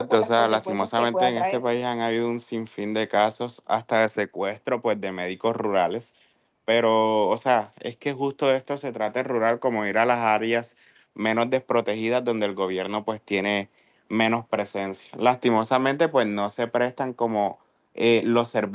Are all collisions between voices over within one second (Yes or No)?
No